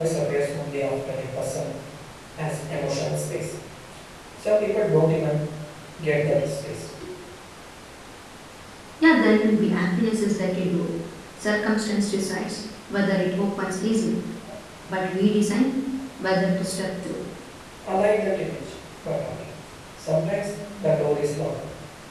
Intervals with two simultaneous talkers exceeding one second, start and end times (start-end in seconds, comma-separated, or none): none